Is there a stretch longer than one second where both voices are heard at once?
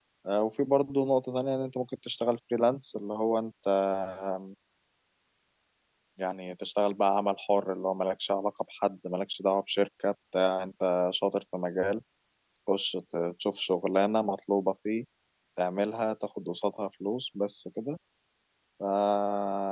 No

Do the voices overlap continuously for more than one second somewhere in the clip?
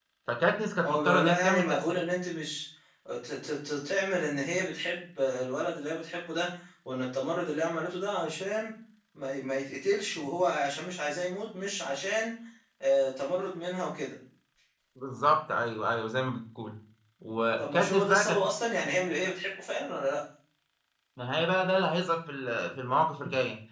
Yes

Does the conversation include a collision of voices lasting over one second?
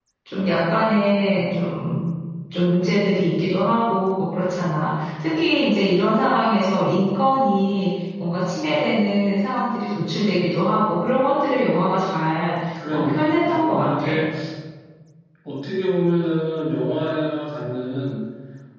Yes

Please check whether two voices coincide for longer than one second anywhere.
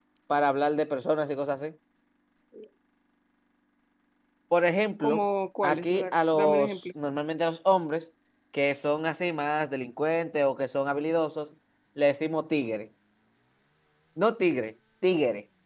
Yes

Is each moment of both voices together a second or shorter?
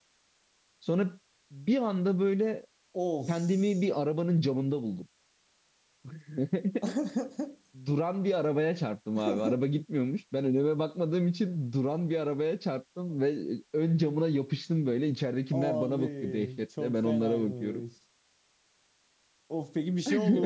No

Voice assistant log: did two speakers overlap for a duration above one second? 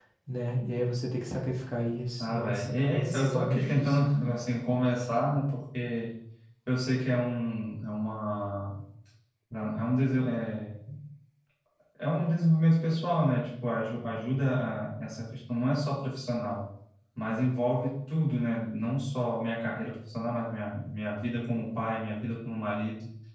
Yes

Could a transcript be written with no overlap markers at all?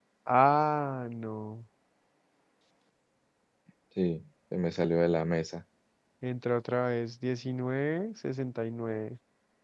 Yes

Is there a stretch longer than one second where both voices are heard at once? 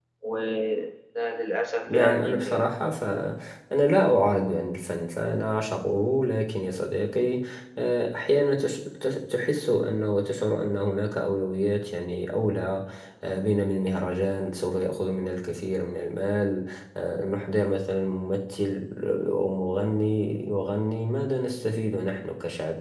Yes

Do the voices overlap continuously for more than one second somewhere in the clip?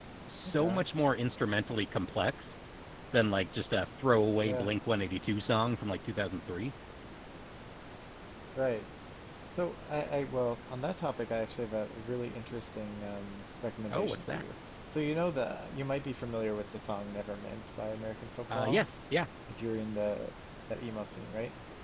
No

